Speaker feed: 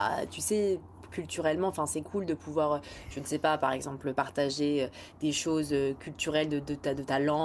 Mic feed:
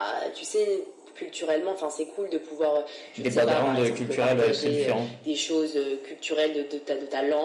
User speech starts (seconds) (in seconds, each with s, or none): 3.2 s